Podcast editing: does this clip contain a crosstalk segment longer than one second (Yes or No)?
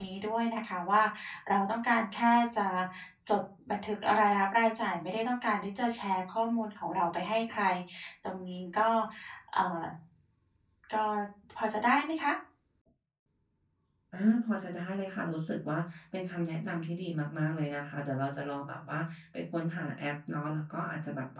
No